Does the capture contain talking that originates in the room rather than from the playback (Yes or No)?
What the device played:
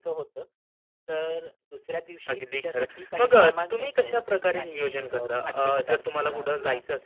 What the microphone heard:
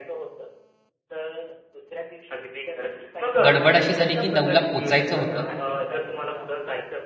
Yes